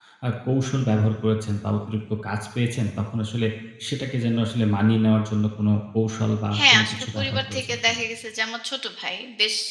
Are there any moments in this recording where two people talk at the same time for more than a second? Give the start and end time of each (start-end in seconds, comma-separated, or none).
6.5-8.0